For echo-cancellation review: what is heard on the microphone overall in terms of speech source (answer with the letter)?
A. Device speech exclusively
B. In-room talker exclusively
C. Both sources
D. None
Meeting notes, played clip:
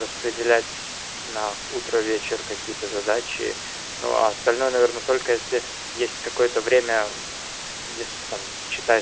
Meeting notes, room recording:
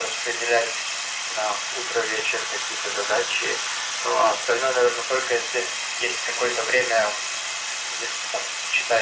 A